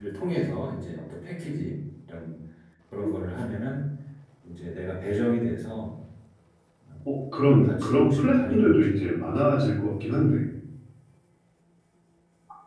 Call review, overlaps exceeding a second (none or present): present